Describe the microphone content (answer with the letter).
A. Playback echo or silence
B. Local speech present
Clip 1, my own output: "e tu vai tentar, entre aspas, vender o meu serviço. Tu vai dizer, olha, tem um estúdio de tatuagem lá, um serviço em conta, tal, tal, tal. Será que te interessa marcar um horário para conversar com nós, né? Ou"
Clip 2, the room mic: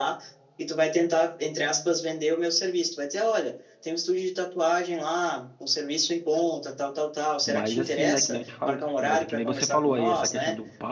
B